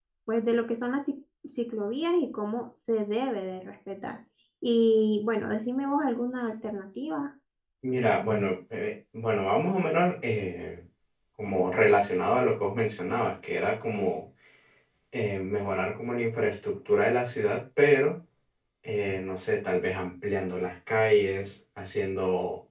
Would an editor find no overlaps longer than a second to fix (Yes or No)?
Yes